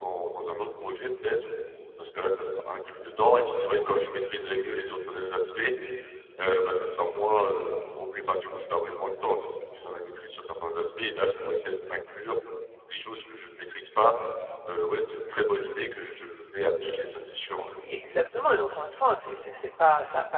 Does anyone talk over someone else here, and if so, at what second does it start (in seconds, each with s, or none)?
none